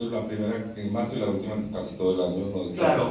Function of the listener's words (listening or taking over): taking over